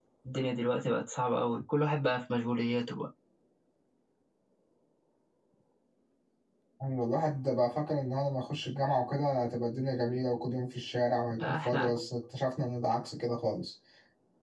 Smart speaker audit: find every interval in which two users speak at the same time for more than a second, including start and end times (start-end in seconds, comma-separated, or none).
none